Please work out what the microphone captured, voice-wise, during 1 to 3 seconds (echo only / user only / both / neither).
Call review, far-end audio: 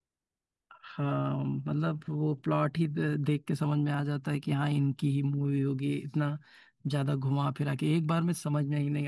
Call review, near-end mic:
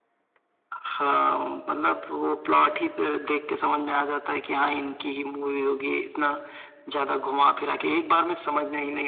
echo only